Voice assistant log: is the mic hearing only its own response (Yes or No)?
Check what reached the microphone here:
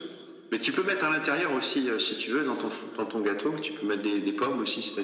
Yes